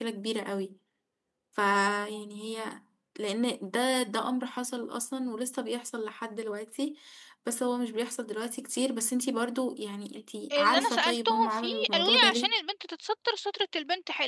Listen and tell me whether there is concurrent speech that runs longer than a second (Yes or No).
Yes